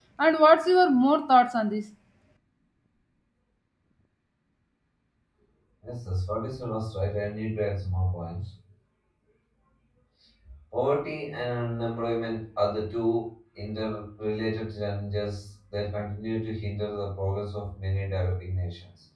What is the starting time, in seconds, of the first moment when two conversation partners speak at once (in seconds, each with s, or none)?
none